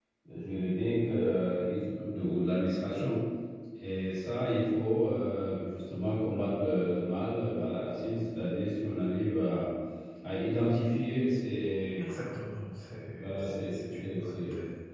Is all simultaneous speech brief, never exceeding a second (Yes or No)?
No